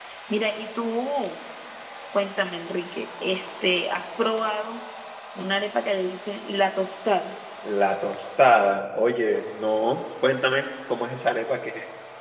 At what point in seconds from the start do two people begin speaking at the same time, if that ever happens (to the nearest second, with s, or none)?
none